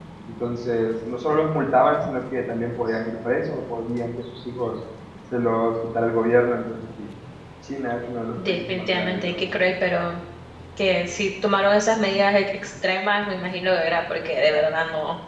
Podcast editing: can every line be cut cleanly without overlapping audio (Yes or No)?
No